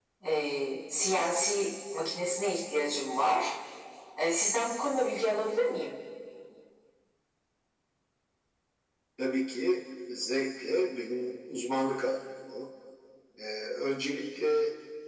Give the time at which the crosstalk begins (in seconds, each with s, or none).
none